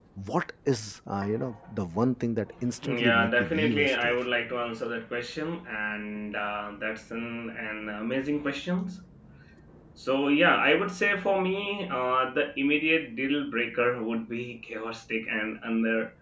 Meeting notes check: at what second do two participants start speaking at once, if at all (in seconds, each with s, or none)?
2.8 s